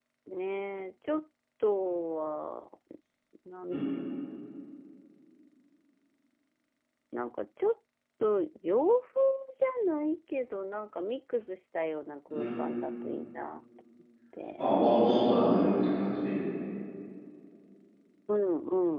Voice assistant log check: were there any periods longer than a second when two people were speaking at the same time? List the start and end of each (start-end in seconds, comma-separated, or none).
none